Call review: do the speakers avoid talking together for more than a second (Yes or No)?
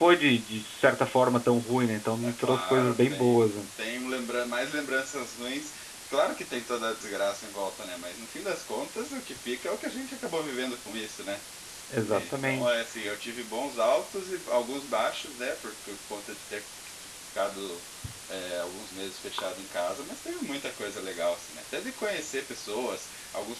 No